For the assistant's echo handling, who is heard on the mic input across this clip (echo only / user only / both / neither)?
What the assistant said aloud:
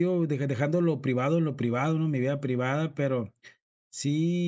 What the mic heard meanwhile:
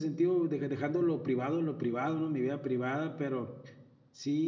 echo only